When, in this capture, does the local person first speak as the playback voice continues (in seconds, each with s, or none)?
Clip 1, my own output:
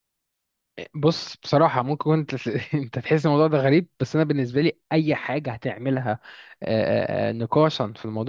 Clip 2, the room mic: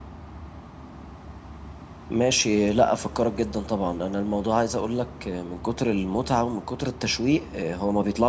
2.1 s